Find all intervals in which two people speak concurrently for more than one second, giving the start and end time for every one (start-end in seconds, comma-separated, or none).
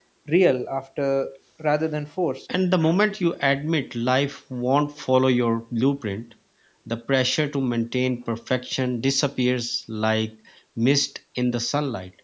none